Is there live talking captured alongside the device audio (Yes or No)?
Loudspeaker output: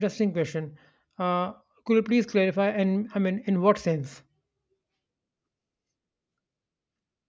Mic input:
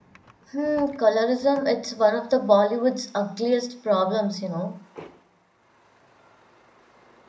Yes